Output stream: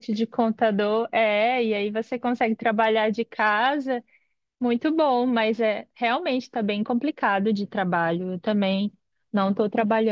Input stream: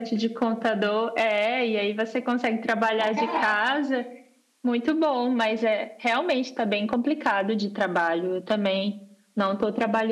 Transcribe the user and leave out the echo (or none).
Pra caraca!